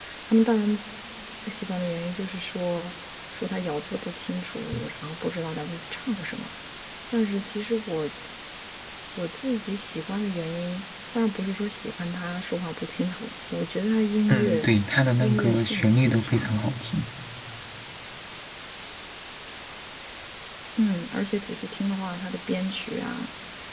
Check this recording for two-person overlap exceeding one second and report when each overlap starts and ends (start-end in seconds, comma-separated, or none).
15.2-16.6